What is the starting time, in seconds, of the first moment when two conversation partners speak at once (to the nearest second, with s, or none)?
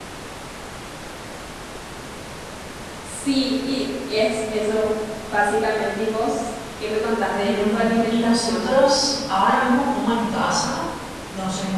7 s